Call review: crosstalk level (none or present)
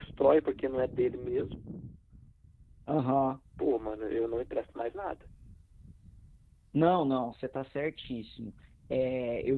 none